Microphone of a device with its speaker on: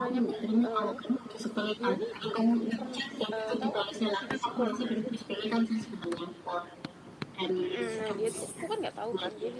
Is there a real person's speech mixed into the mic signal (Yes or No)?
Yes